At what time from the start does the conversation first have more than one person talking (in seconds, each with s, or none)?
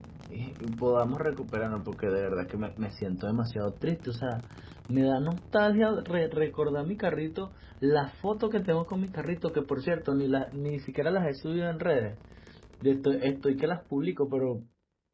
none